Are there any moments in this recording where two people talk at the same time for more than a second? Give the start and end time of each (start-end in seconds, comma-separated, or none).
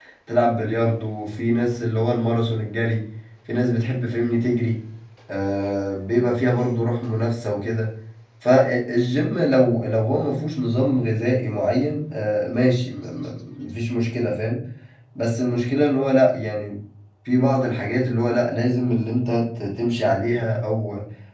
none